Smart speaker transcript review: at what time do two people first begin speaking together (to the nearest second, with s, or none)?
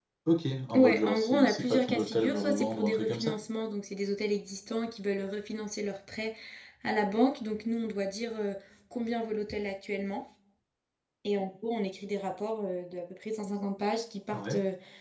1 s